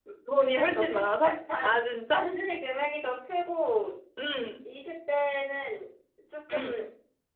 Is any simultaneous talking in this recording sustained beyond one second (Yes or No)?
Yes